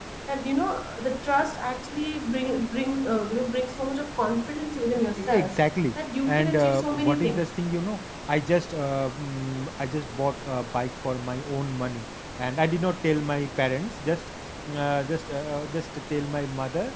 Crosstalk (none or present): present